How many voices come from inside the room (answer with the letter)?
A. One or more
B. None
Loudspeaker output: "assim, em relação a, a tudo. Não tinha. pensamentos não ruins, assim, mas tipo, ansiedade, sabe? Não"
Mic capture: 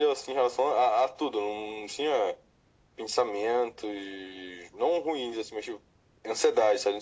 B